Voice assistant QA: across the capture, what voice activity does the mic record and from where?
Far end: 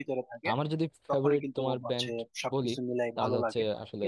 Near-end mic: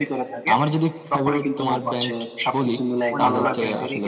both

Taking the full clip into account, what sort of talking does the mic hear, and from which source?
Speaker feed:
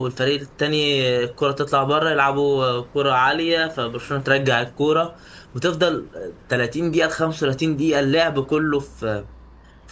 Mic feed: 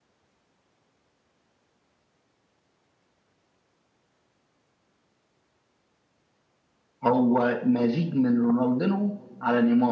user only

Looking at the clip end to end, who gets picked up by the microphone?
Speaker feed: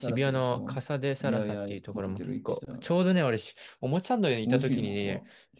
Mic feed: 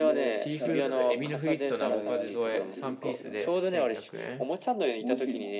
both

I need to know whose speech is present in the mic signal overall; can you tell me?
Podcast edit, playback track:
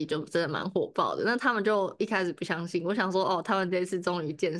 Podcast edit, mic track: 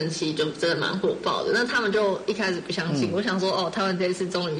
both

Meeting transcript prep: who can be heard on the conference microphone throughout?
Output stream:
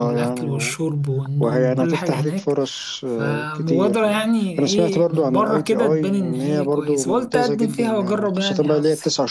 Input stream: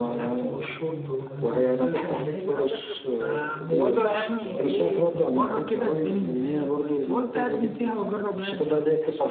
both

